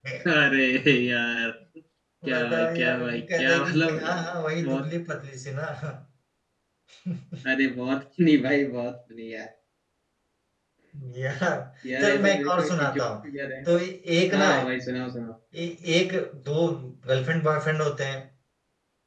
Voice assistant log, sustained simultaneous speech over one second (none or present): present